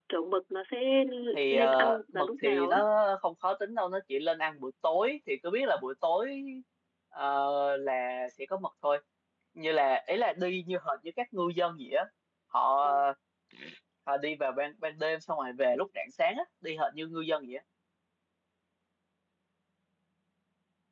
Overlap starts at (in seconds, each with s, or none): 1.5 s